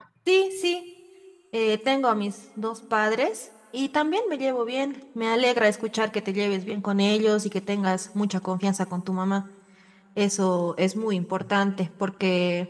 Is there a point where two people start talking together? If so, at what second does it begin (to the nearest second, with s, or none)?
none